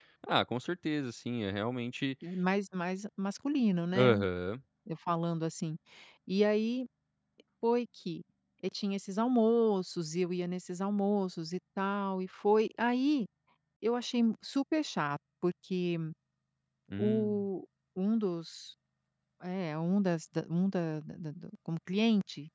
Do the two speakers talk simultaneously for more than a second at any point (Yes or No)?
No